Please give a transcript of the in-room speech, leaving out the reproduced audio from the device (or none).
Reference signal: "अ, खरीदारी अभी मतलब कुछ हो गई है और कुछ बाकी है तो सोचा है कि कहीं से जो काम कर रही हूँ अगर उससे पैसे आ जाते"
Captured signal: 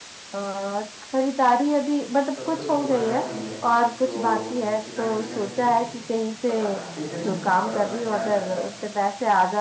सब कुछ तुम्हारा भी है तो बिना झिझक के बताना ठीक है ना और अपना ख्याल रखना